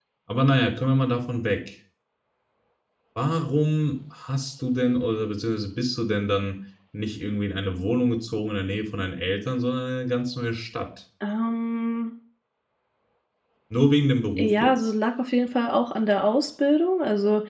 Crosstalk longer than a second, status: none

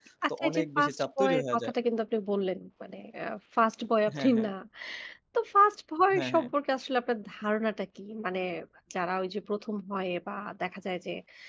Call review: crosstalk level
present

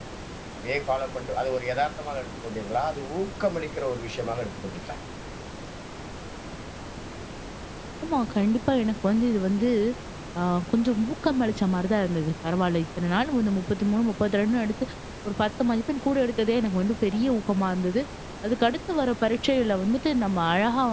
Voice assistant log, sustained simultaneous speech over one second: none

